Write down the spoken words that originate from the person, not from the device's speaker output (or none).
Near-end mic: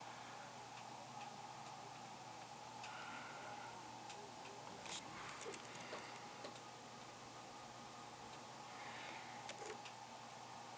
none